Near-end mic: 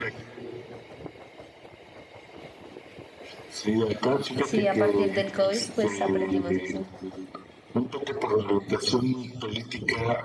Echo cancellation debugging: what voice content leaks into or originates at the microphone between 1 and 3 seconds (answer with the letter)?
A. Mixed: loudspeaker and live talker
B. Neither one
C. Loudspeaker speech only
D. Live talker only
B